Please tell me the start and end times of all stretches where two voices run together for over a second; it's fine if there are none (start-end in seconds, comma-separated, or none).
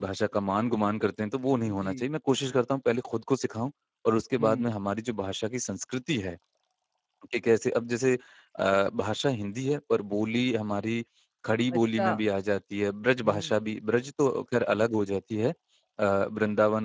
none